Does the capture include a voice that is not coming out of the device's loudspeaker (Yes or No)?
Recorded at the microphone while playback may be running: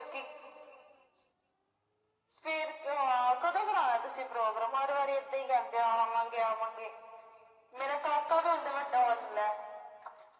No